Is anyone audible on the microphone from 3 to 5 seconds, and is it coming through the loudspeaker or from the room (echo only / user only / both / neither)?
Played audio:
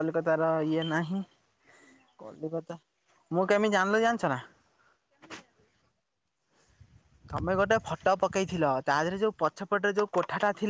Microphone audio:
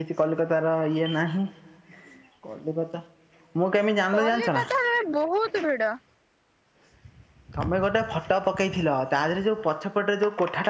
both